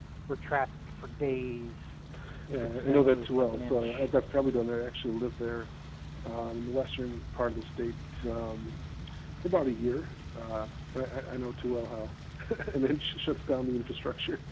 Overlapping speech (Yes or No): Yes